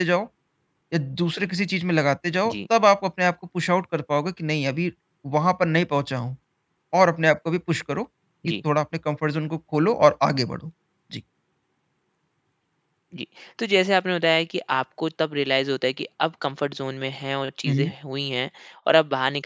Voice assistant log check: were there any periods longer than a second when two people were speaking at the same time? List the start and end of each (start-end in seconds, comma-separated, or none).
none